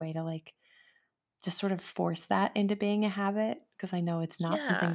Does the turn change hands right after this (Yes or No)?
No